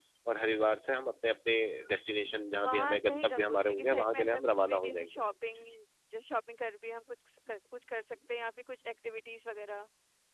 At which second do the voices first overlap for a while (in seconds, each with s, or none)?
2.6 s